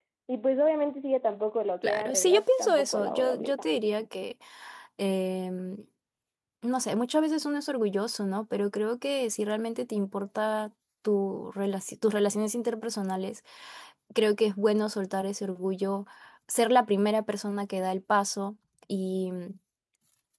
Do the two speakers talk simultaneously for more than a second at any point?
Yes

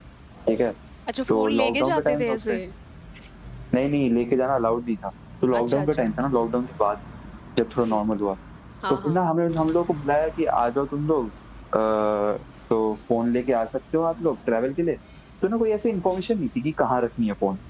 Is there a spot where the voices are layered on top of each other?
Yes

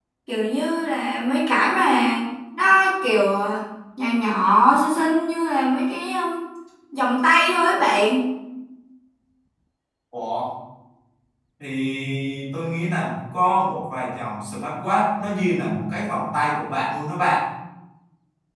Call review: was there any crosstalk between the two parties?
No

